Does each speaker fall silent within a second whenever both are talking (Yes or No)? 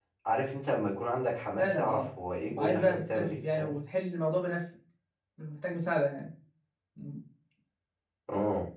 No